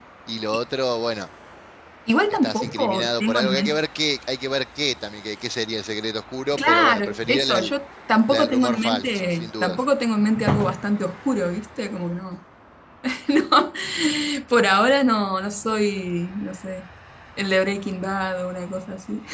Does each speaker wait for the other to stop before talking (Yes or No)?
No